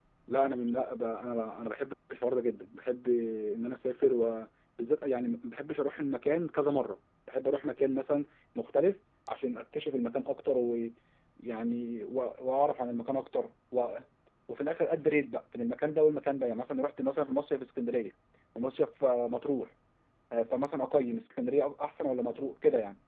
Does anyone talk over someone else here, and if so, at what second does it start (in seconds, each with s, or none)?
none